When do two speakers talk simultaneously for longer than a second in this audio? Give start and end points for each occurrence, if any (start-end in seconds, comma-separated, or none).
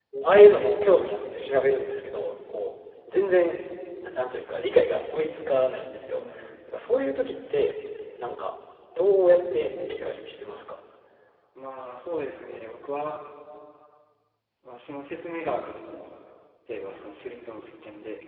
none